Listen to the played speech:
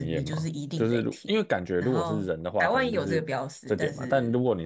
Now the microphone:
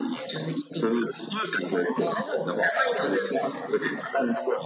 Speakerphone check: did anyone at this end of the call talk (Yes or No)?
Yes